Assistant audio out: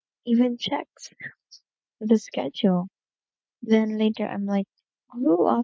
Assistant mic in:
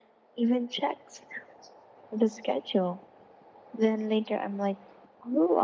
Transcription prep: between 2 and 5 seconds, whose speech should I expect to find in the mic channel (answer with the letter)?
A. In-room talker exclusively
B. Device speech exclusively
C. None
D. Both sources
B